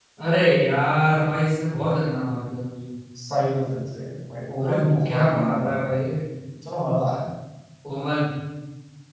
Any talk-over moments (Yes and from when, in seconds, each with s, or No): Yes, from 4.6 s